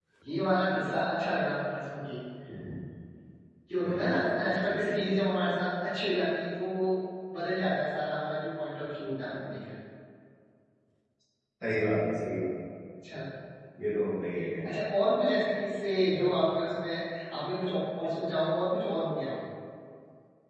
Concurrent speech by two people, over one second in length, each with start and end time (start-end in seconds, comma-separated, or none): 4.0-5.2